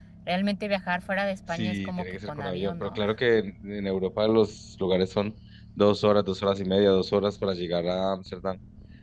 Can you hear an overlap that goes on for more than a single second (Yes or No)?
Yes